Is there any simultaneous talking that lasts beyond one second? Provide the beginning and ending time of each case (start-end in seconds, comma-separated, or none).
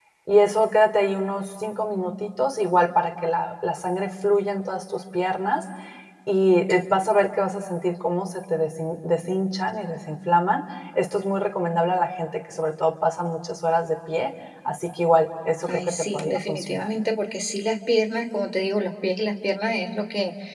15.7-16.9